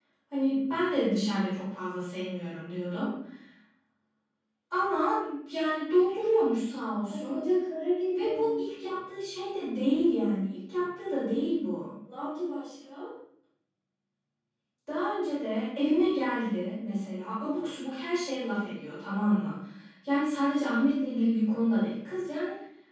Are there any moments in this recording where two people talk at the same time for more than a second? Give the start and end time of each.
none

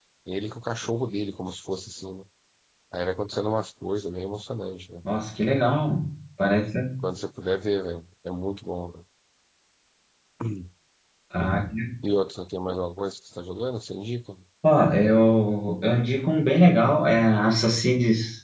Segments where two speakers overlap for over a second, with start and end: none

